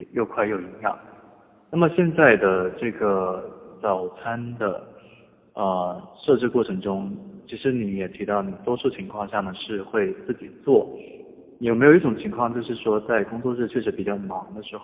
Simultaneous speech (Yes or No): No